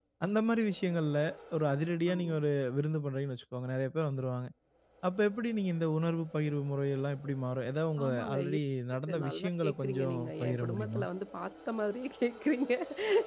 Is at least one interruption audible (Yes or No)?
Yes